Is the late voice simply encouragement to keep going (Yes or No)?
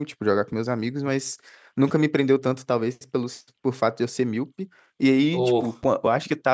Yes